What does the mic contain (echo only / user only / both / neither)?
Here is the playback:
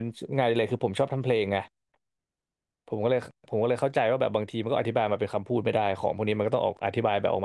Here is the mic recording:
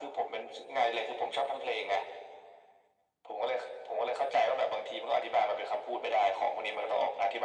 echo only